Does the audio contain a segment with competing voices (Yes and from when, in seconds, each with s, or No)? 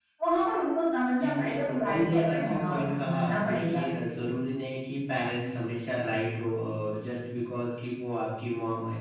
Yes, from 1.2 s